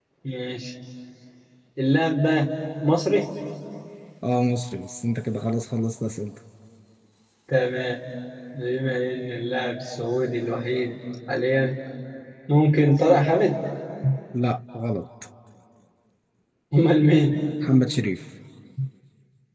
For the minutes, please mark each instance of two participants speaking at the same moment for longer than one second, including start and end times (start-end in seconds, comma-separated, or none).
none